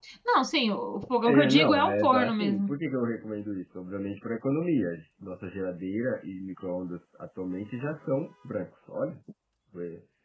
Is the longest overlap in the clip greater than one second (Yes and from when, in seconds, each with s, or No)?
Yes, from 1.2 s